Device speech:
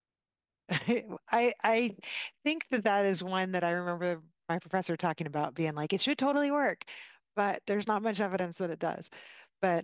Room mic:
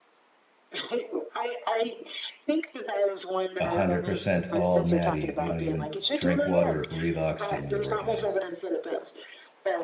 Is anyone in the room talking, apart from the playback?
Yes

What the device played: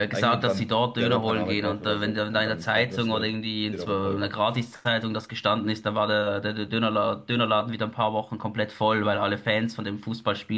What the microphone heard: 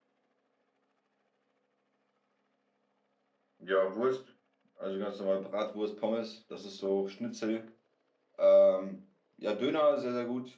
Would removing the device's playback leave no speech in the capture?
No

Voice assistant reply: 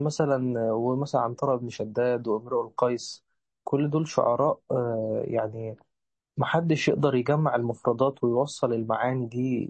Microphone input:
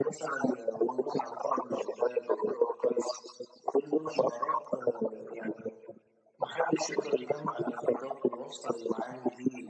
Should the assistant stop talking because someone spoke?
No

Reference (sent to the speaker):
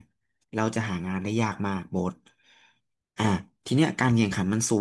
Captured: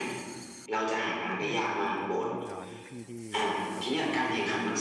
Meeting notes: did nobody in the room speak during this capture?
No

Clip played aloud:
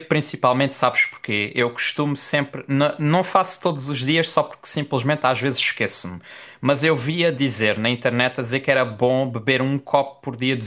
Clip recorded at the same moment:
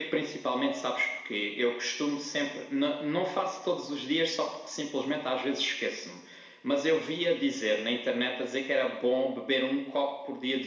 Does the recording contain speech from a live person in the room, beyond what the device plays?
No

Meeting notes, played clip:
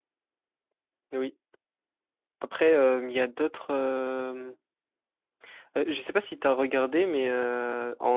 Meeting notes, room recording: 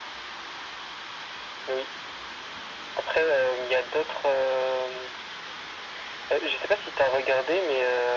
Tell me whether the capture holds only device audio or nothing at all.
Yes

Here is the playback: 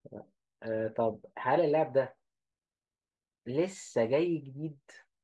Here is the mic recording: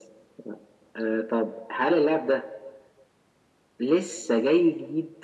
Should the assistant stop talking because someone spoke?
No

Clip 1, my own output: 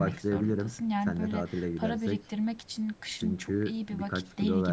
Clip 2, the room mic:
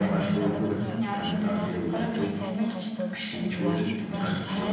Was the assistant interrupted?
Yes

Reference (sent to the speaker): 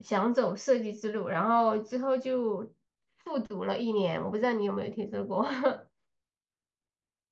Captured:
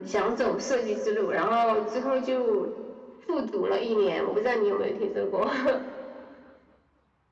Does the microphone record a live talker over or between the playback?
No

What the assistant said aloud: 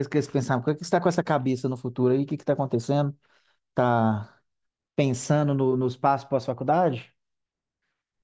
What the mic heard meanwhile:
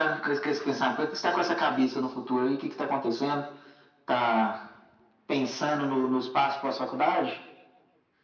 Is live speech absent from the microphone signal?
Yes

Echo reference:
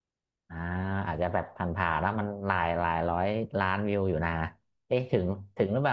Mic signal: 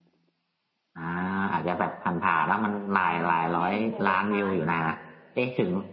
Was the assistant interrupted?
Yes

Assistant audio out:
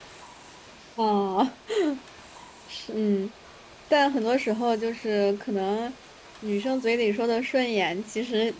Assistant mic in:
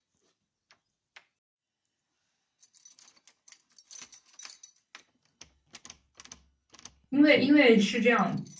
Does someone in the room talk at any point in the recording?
Yes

